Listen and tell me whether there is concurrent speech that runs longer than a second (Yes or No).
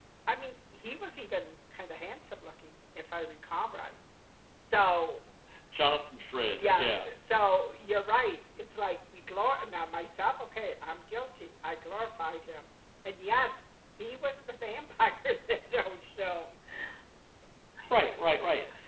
No